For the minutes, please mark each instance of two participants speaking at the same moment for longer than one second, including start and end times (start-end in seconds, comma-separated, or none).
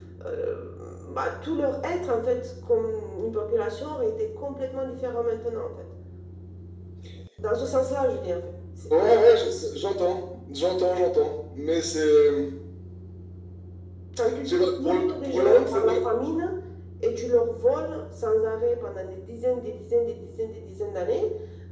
14.5-15.9